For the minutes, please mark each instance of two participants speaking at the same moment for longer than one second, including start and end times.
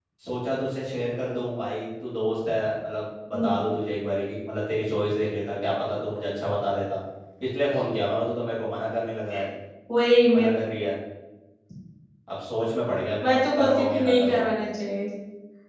13.2-14.6

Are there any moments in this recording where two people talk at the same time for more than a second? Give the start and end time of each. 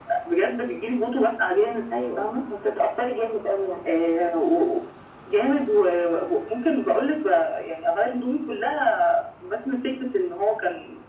none

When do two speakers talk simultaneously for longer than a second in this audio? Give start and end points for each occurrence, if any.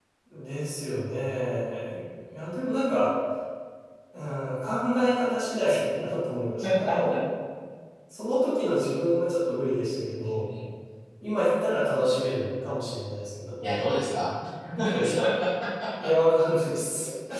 none

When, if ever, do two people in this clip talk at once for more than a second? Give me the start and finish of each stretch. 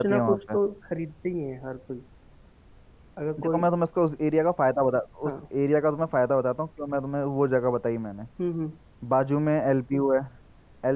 none

